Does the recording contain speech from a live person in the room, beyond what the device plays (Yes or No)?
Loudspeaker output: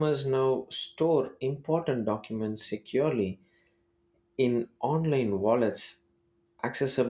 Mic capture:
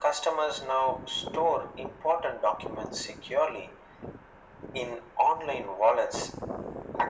No